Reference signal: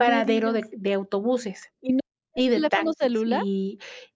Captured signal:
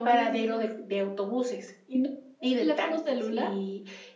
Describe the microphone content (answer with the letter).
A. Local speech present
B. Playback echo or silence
B